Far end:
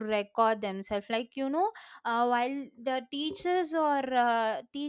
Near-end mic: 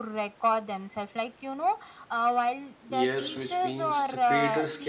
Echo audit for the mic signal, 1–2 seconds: echo only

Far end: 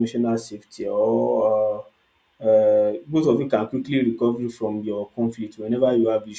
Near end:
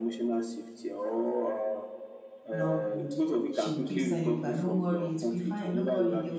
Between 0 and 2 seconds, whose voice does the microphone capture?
echo only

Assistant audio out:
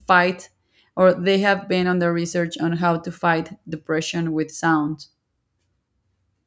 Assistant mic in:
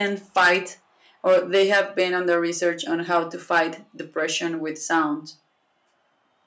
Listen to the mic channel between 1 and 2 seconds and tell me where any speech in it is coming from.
echo only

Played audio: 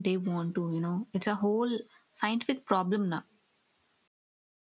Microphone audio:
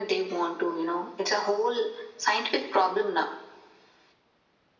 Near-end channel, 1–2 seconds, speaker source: echo only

